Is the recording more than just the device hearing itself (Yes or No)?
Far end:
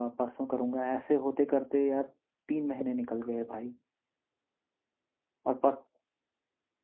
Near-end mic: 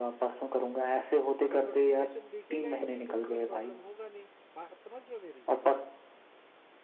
Yes